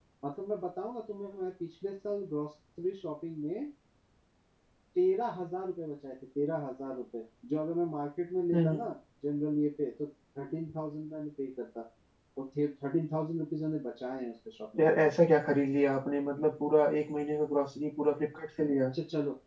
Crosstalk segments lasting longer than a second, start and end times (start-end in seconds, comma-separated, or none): none